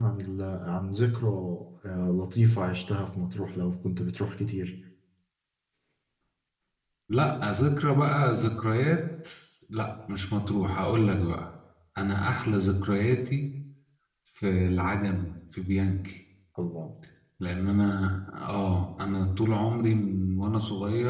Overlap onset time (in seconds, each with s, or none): none